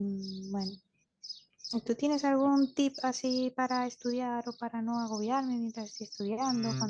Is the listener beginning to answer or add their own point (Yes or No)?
Yes